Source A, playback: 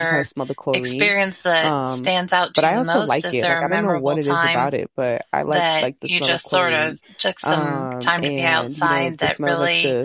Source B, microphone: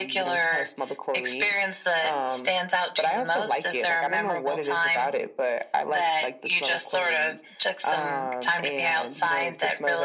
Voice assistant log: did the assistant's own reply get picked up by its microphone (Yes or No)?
Yes